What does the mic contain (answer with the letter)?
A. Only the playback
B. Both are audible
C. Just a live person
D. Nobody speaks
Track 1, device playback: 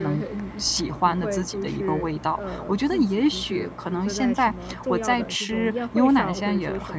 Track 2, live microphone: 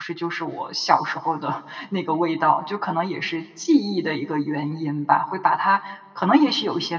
C